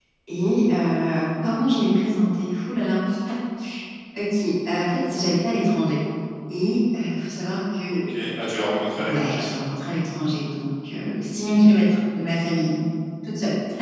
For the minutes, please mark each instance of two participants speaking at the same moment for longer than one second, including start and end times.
none

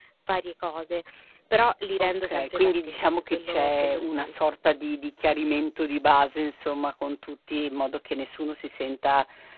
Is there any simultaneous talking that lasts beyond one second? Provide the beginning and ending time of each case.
2.0-4.3

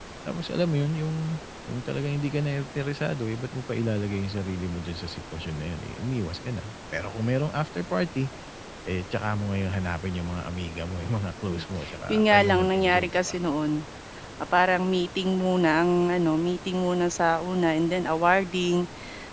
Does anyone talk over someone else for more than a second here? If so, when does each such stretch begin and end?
12.1-13.4

